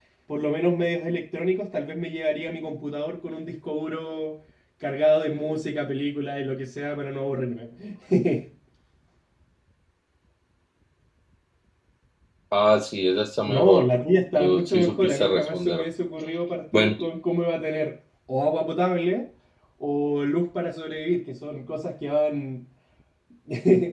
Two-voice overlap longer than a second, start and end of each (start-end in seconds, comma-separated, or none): 14.4-15.8